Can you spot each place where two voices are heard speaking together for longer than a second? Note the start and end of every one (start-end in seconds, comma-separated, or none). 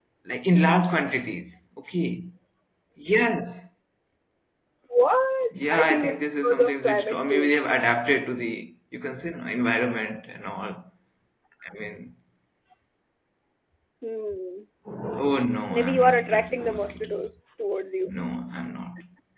5.7-7.6, 15.7-17.3